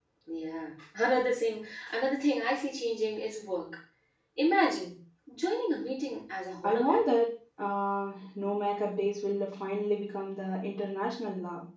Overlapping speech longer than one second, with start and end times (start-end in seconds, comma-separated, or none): none